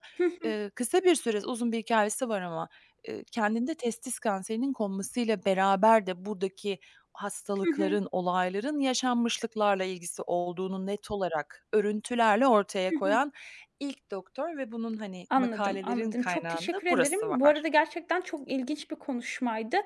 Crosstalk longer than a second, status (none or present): present